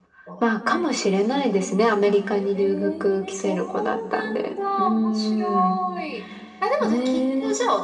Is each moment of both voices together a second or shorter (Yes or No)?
No